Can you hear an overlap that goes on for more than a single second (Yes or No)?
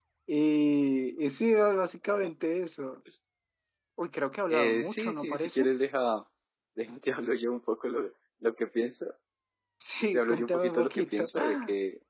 Yes